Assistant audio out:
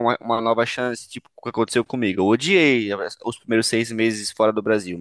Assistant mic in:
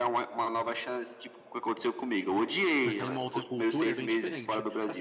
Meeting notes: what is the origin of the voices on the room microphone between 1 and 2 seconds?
echo only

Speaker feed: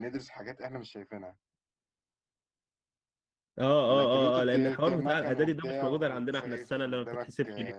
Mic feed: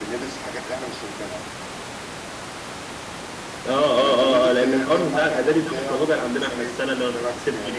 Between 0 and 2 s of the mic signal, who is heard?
echo only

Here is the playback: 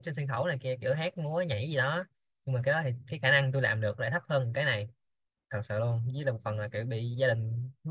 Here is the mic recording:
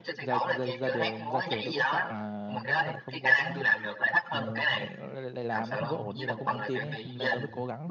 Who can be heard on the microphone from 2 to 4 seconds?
both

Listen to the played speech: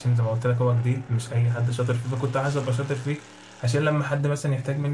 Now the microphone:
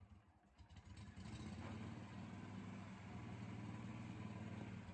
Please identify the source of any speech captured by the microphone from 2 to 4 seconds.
neither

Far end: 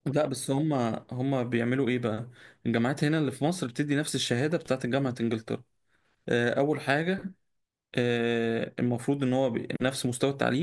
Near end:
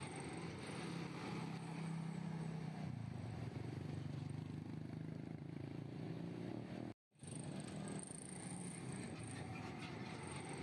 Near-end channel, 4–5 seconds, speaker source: neither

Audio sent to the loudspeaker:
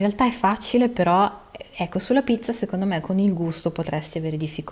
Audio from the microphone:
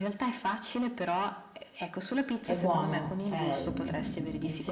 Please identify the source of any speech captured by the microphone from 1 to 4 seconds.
both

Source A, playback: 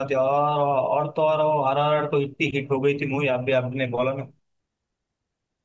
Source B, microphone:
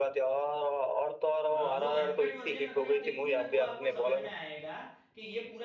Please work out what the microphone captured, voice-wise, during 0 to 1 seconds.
echo only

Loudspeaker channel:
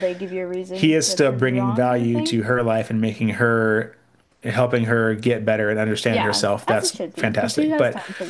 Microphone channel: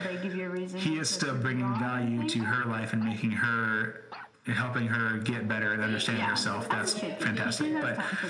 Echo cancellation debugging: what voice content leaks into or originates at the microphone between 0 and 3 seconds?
echo only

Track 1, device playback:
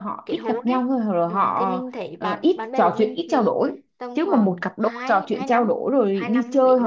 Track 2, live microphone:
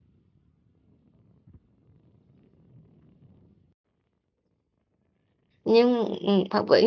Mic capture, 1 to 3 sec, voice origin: neither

